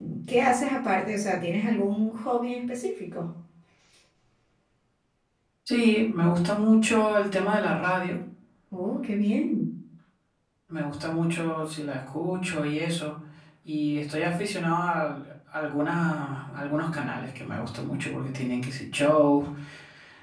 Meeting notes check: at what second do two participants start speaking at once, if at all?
none

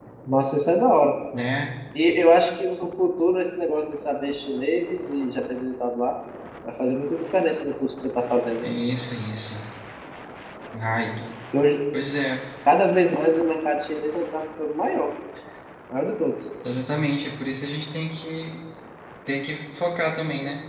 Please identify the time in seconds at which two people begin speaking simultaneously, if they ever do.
none

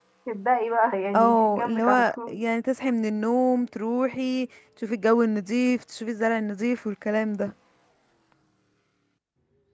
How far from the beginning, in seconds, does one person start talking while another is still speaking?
1.2 s

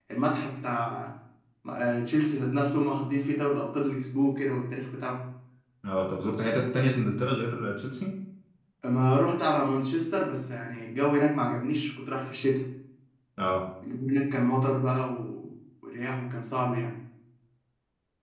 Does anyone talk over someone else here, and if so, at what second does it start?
none

